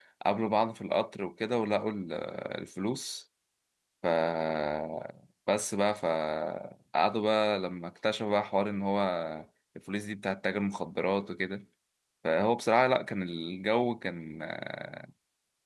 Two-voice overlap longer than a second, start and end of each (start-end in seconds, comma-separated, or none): none